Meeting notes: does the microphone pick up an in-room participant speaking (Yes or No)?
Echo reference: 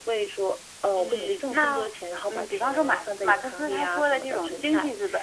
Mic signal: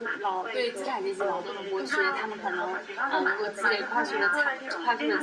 Yes